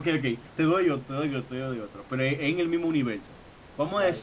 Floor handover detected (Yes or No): No